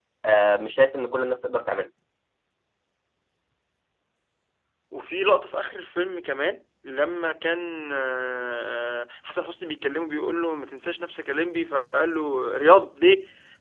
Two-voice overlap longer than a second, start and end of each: none

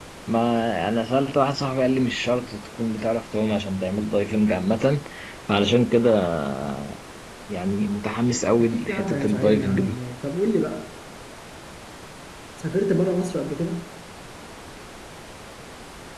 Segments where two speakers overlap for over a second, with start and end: 8.6-10.0

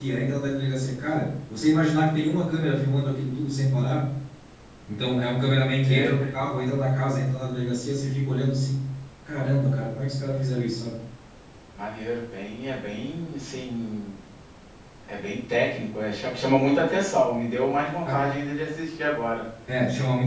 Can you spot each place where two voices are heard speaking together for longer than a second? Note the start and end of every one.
none

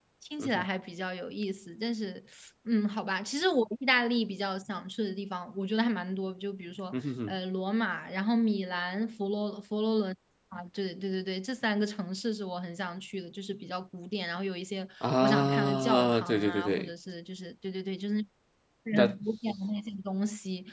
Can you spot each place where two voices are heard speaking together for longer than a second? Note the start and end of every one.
15.2-16.9

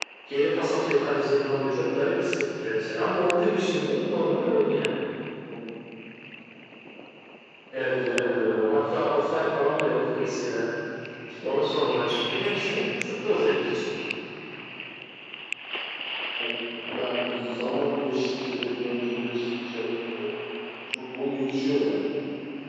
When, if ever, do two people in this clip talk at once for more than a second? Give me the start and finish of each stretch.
7.8-9.2

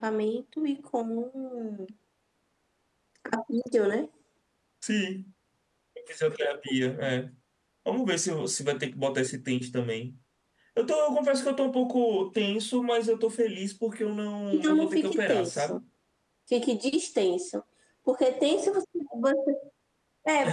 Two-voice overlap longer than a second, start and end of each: 14.5-15.8

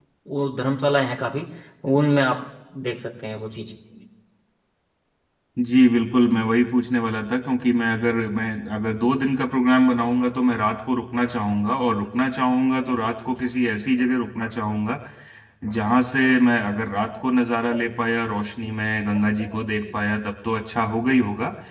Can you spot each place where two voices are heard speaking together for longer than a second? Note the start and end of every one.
none

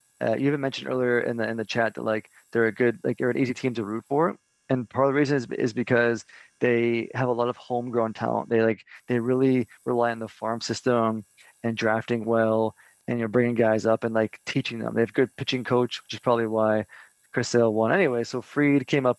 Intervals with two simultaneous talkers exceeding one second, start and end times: none

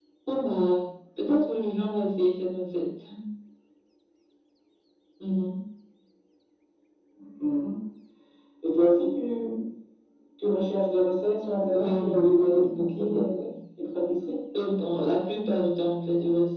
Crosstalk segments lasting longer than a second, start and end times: 11.7-13.4

